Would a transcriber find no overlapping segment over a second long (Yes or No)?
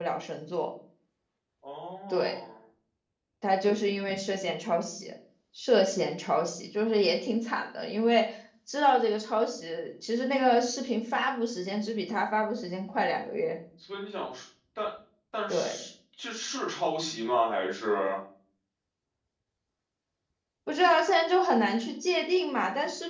Yes